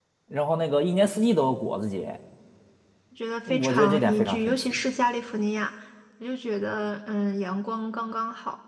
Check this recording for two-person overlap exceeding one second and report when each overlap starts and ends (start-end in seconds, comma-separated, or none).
3.5-4.7